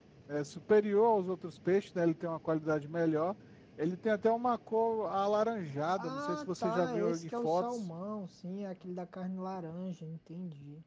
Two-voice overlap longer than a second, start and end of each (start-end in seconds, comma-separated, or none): 6.0-7.7